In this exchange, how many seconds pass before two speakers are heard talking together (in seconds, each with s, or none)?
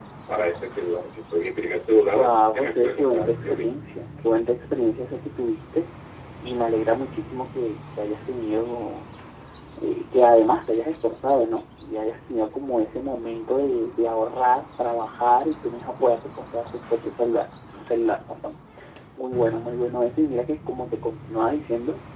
2.1 s